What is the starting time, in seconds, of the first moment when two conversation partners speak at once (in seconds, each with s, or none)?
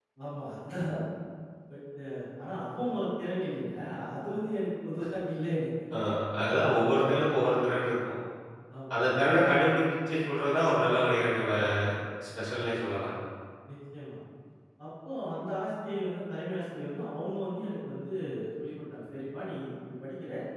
none